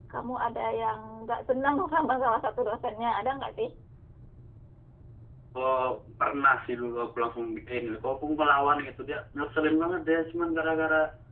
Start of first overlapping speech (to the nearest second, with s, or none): none